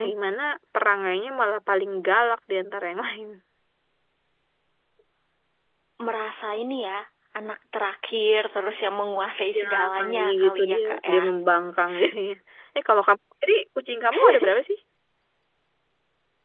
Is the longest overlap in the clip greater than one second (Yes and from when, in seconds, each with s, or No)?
Yes, from 9.6 s